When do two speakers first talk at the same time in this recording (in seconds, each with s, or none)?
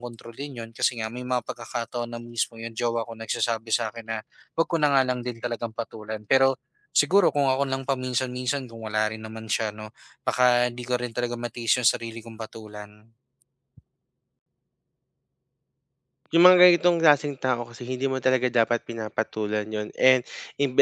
none